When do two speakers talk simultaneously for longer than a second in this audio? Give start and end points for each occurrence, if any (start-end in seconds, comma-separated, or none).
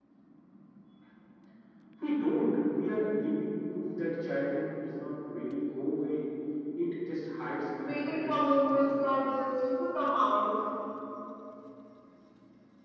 7.8-9.3